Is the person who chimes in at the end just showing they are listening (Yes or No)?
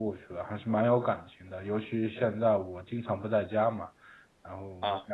Yes